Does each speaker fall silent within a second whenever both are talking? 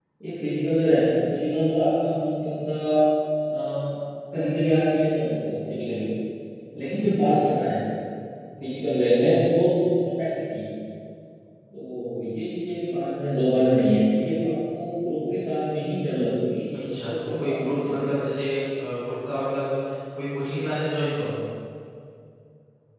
No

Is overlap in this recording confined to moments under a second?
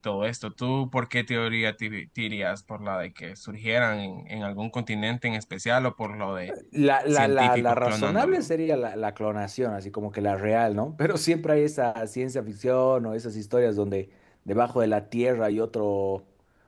No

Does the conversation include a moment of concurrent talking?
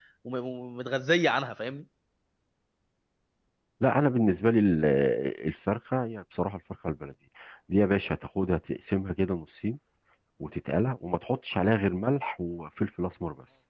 No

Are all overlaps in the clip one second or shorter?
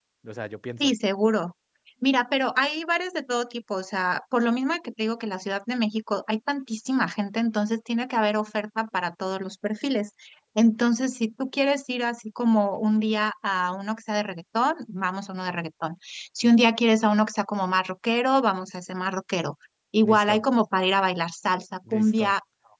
Yes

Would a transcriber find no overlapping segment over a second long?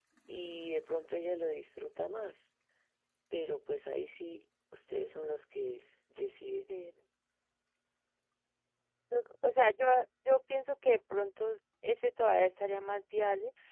Yes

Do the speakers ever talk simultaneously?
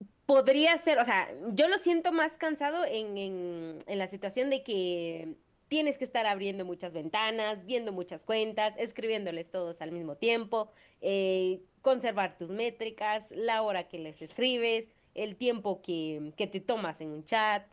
No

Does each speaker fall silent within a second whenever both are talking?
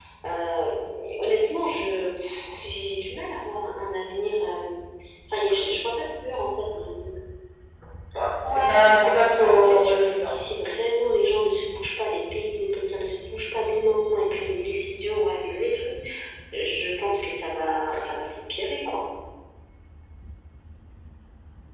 No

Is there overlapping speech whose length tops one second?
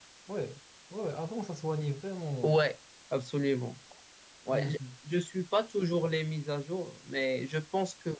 No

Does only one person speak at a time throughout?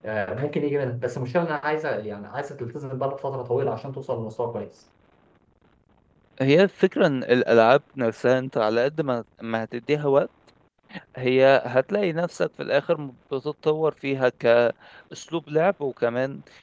Yes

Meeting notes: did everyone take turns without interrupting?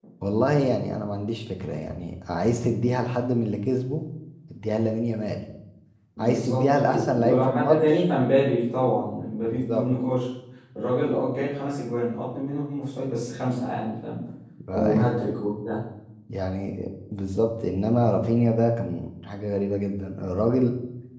No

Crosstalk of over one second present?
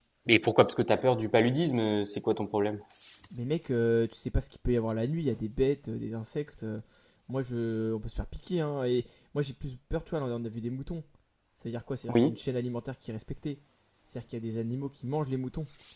No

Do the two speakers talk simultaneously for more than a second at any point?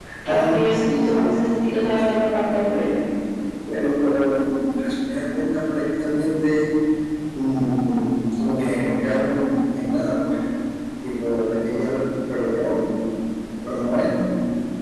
Yes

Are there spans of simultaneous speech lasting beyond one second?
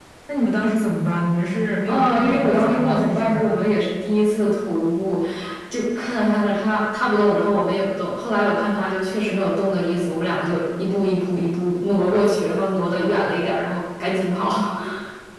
Yes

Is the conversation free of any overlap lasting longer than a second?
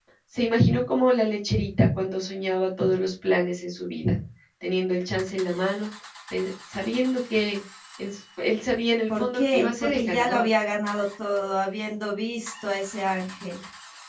No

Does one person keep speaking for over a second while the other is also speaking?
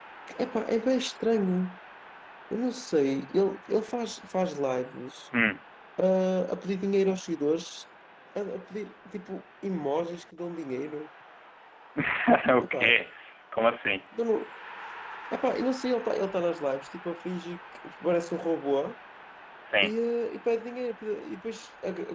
No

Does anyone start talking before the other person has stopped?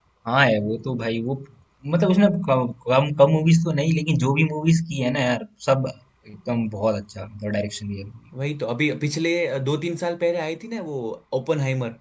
No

